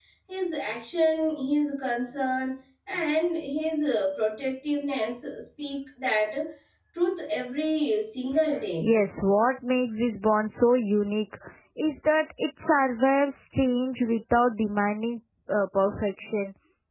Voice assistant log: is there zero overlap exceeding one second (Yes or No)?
Yes